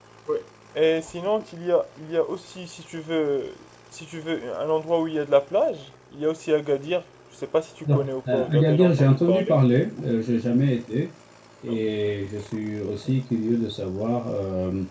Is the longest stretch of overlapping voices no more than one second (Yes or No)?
No